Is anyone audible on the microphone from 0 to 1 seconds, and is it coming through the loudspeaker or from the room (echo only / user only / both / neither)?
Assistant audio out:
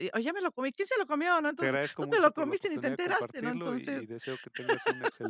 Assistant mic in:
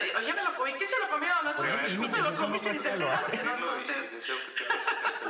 echo only